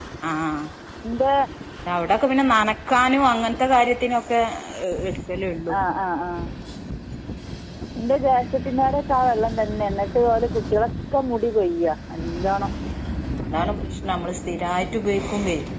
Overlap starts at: none

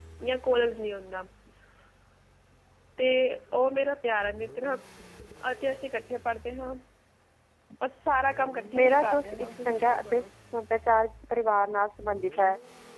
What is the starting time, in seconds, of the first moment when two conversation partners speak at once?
8.7 s

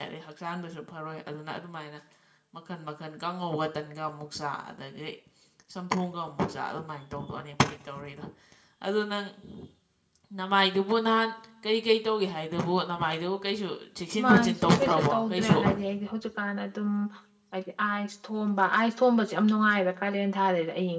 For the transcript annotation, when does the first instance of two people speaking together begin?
14.2 s

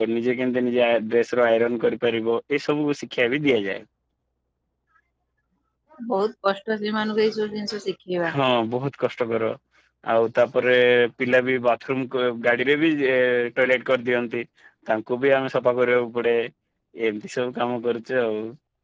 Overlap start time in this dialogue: none

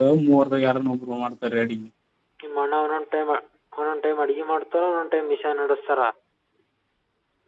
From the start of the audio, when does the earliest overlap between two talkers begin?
none

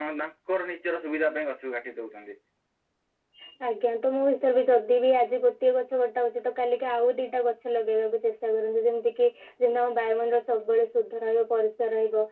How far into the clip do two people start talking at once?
none

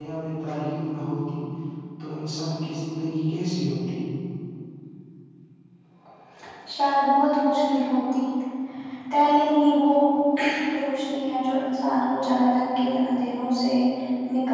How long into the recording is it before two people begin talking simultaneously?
none

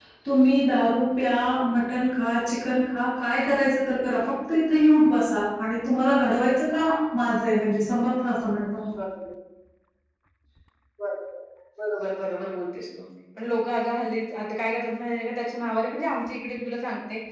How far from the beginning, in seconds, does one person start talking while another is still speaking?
none

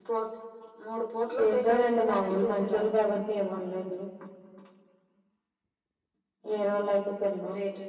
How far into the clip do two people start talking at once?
1.4 s

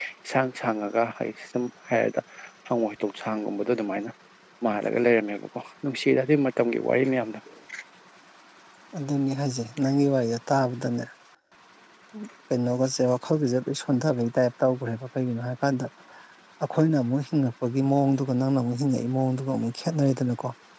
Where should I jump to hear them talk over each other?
none

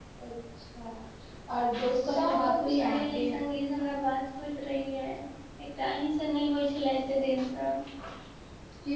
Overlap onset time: 2.0 s

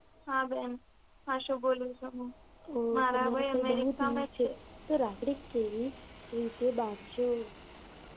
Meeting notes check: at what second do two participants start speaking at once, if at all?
3.0 s

